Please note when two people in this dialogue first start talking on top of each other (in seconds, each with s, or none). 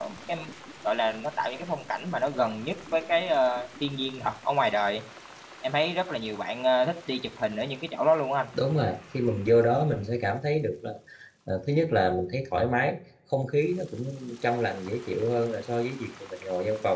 none